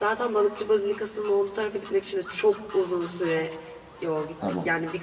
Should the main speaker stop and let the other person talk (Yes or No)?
Yes